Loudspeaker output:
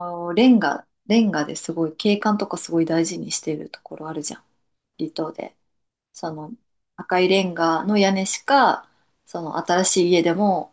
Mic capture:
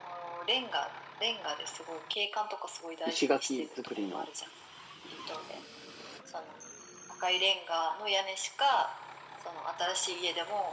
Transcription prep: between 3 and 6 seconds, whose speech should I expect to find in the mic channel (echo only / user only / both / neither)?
both